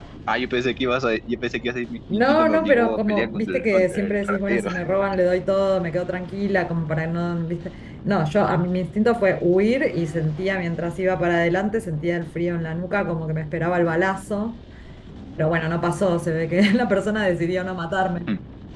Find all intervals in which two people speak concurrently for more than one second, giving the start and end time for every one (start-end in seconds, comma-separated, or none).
2.1-4.7